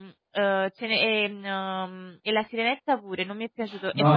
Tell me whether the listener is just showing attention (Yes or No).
No